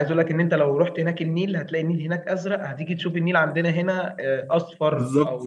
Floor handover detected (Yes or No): No